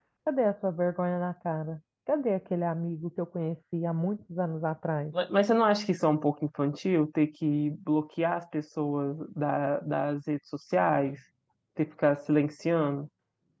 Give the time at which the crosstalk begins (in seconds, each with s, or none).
none